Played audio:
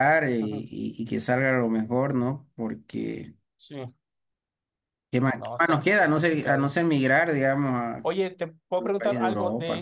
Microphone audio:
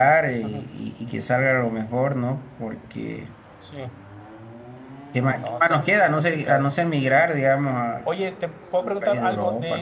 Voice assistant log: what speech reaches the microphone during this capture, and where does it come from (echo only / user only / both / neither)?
echo only